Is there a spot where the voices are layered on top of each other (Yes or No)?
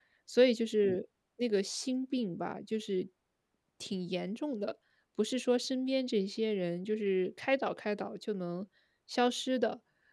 No